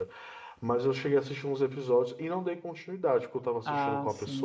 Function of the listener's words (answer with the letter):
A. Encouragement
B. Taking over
A